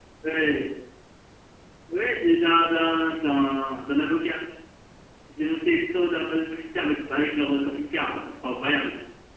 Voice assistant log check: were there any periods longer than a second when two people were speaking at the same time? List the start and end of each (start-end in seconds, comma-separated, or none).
none